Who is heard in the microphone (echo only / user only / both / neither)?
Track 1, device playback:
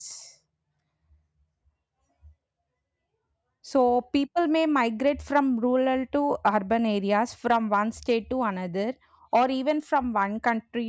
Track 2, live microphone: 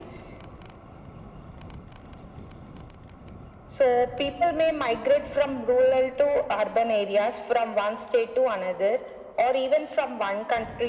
echo only